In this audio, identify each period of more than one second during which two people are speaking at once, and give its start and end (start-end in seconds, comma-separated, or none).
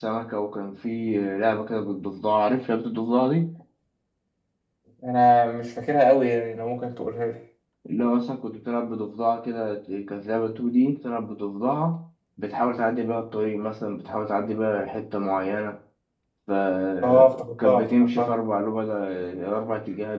17.0-18.3